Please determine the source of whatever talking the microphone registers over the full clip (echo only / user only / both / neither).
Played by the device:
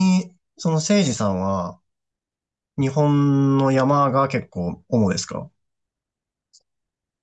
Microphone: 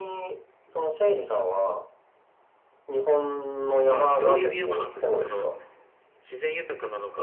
both